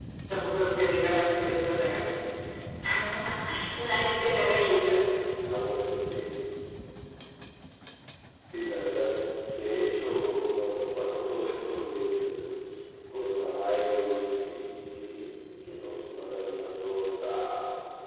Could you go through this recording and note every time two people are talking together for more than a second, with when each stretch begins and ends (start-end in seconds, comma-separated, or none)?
none